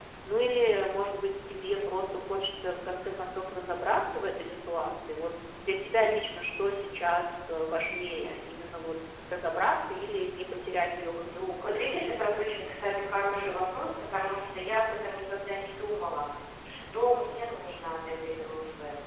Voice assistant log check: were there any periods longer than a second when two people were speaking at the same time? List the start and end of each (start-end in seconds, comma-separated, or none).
none